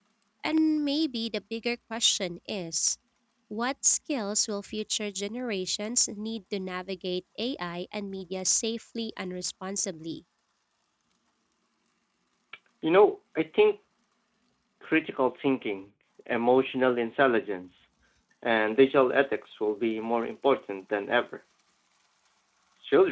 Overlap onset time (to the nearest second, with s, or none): none